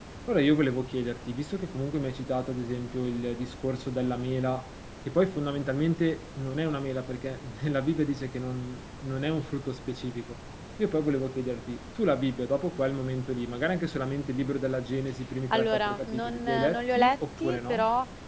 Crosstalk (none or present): present